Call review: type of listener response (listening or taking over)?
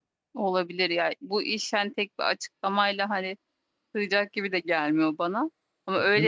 listening